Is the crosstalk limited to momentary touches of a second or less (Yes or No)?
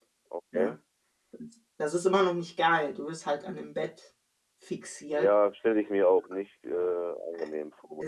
Yes